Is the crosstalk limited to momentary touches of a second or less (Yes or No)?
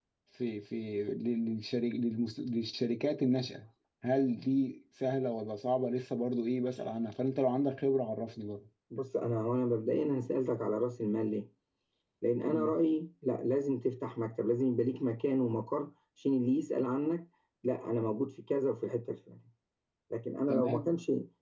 Yes